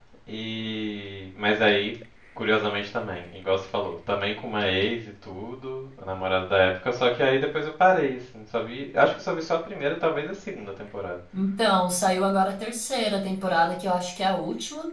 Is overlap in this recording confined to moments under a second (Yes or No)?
Yes